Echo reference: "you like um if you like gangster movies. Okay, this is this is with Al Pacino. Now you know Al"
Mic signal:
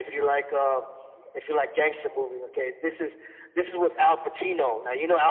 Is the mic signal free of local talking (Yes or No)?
Yes